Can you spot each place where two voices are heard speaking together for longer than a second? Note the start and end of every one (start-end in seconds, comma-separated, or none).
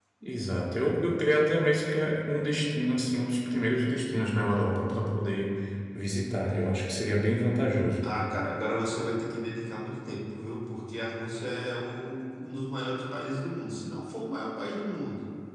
none